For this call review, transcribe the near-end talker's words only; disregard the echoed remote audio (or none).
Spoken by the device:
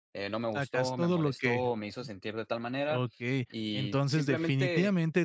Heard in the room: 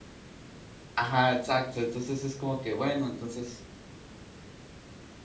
Ajá, exacto. Entonces, es como que bueno, entonces